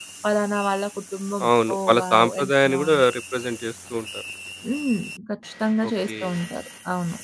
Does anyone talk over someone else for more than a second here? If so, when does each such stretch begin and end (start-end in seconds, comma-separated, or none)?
1.5-3.0